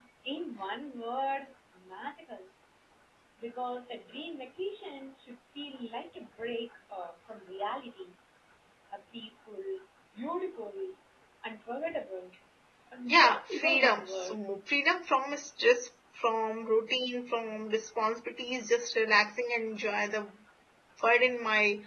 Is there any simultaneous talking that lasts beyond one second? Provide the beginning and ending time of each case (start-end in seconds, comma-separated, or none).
13.1-14.4